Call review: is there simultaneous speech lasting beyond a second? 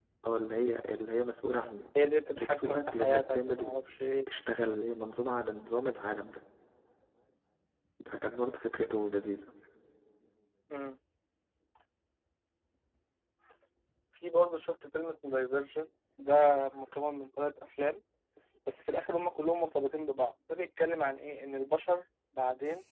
Yes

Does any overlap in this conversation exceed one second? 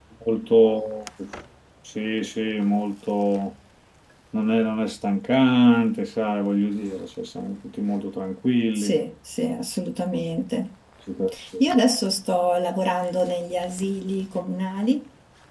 No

